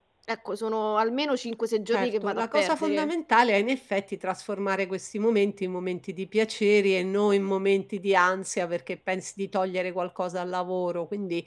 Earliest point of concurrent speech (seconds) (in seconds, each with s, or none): 1.9 s